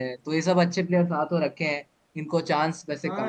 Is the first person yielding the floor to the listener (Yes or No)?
Yes